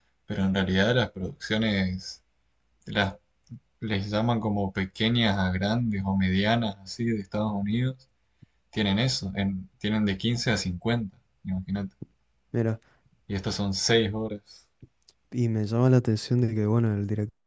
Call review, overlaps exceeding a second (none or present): none